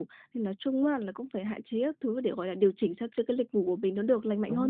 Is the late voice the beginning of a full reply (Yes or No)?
Yes